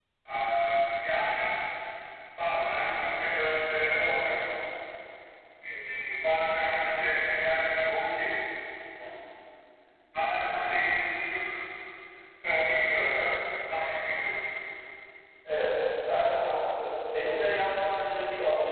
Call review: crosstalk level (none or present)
none